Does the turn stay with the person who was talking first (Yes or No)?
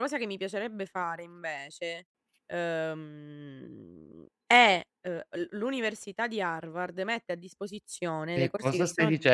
No